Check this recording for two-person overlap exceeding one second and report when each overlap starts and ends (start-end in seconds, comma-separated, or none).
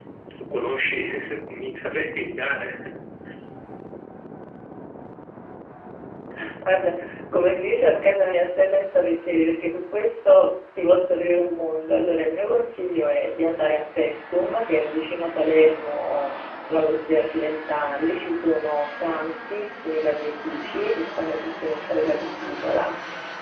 none